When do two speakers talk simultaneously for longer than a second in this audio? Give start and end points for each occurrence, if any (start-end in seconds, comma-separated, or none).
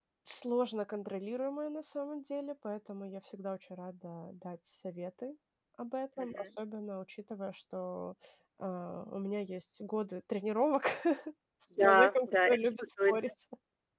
11.8-13.2